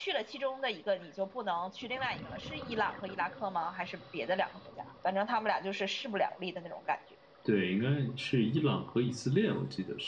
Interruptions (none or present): none